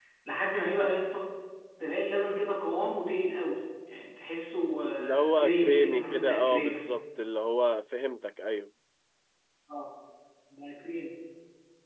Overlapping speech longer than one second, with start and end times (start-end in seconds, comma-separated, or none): 5.0-6.9